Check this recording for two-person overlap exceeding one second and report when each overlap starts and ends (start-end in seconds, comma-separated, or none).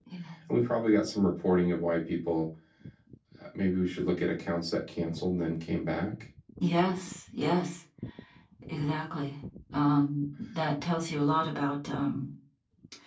none